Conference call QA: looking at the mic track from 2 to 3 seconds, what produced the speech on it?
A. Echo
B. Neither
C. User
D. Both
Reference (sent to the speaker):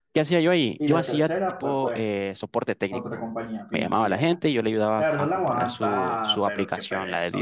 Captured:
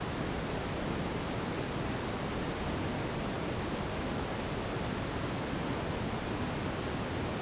B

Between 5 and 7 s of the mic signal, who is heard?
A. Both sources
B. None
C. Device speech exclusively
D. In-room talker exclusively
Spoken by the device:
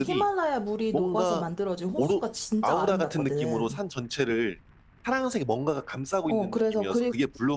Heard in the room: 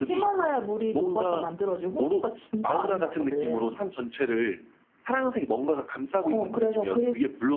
C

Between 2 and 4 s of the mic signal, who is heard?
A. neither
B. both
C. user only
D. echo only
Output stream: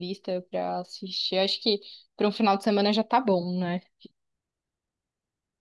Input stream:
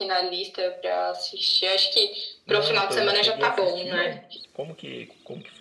B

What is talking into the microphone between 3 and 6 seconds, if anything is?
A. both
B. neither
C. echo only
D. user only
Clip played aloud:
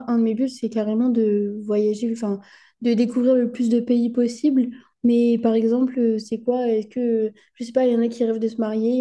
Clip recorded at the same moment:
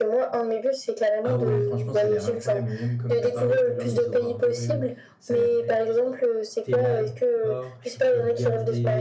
A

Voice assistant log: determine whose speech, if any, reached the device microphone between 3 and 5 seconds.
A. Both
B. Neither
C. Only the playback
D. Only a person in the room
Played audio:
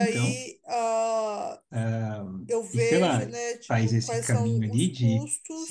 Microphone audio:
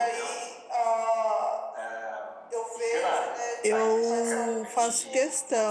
A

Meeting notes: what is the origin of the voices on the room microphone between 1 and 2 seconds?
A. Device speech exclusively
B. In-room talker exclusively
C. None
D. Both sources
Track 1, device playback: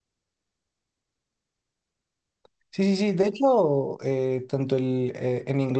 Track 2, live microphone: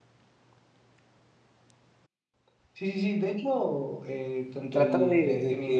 C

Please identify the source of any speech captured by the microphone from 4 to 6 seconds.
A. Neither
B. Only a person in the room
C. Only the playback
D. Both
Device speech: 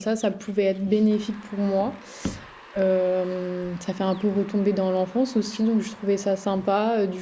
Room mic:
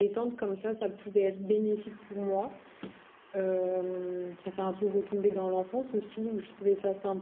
C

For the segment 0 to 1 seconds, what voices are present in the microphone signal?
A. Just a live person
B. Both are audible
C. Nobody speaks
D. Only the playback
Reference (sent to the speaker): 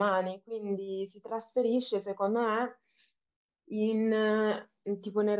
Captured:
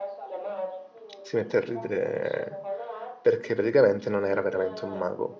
D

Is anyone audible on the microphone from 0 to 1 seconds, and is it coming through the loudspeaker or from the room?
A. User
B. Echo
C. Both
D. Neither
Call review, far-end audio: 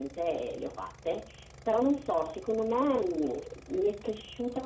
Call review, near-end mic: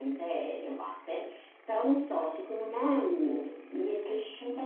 B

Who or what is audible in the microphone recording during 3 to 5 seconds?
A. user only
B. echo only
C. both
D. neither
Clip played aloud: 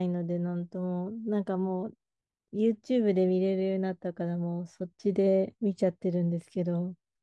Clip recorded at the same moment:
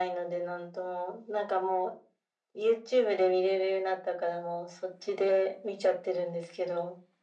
B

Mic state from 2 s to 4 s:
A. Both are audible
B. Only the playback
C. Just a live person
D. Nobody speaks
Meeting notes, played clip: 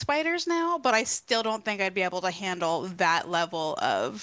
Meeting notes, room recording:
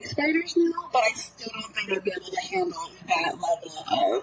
B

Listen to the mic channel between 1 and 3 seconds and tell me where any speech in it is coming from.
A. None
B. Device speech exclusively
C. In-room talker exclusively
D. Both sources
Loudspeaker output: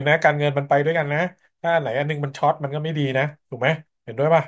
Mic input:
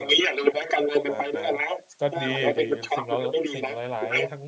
D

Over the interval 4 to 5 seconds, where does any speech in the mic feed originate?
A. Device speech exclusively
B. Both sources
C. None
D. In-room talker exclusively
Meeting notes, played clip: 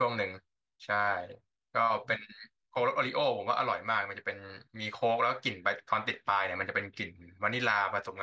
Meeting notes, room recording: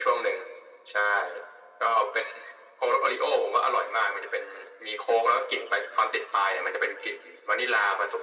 A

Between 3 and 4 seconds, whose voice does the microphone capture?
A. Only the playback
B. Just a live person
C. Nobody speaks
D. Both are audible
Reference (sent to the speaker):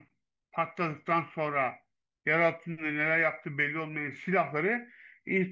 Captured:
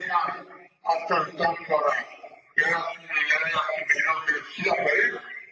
A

